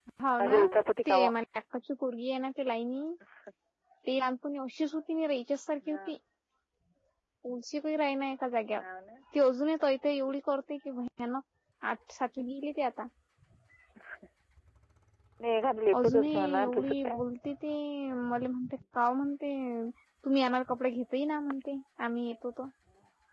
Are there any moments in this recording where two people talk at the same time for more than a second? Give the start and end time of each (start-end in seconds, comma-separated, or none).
15.9-17.2